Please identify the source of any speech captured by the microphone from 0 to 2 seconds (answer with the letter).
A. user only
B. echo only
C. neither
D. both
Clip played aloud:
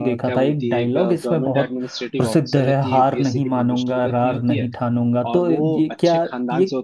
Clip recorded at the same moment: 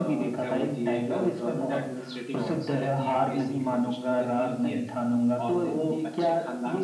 B